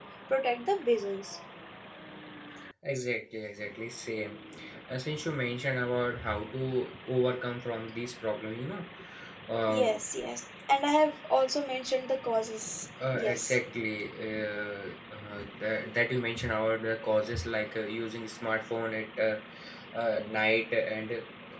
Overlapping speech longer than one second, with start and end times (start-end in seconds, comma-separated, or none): none